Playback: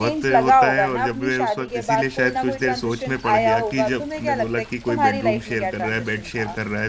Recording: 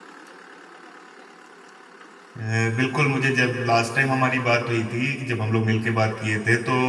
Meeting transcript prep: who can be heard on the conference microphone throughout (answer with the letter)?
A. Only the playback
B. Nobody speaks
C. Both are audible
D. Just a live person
D